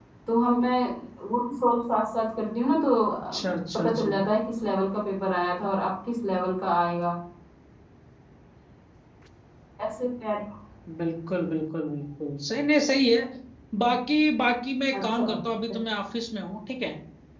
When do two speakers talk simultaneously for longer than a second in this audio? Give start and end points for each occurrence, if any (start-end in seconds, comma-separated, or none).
none